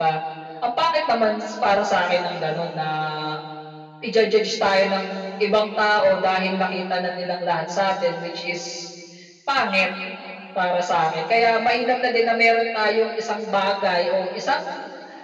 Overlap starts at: none

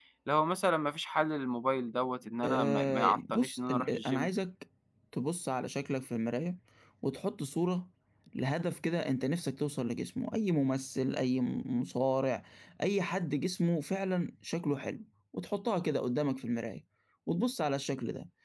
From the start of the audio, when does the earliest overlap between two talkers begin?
2.4 s

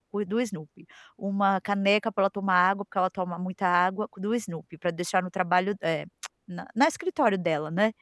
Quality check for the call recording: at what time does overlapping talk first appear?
none

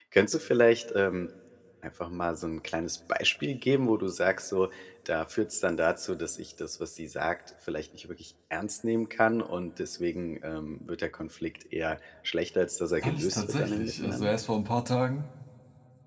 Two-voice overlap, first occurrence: 13.0 s

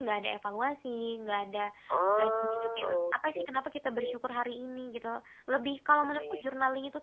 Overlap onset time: 2.2 s

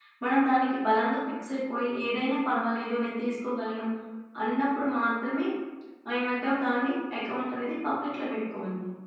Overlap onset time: none

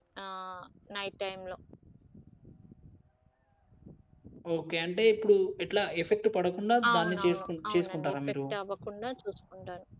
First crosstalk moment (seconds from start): 6.8 s

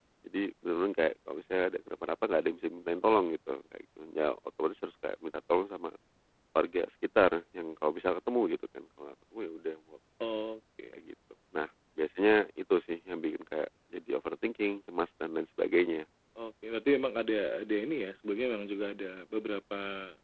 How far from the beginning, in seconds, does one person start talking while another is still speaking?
none

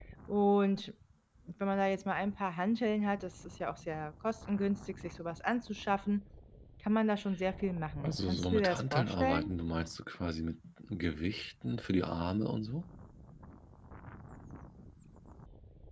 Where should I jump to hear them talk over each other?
8.0 s

